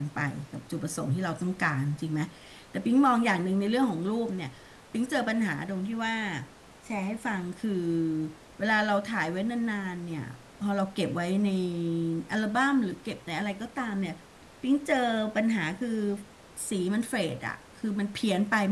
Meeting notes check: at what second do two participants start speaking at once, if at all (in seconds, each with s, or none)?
none